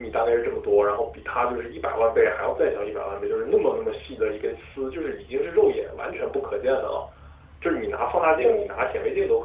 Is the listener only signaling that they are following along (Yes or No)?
Yes